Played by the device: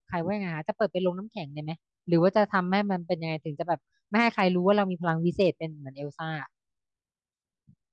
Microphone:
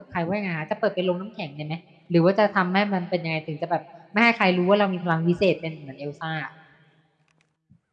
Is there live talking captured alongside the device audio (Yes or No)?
No